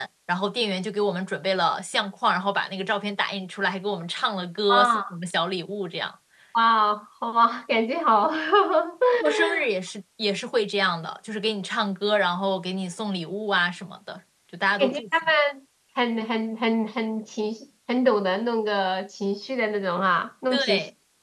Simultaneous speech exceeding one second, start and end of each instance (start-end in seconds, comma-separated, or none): none